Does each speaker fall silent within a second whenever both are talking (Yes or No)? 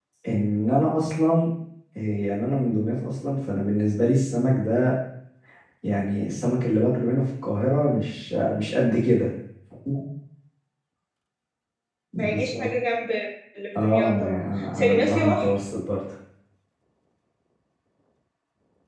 No